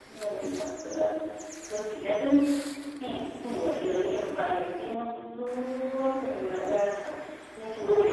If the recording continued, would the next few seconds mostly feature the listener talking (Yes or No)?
Yes